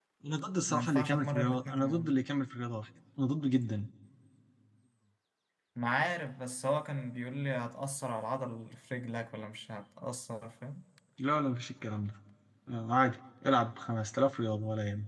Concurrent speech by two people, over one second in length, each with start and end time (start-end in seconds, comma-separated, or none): 0.7-2.1